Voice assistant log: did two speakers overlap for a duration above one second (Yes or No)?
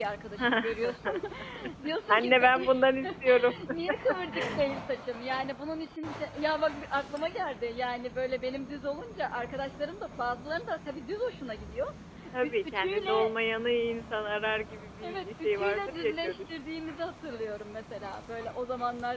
Yes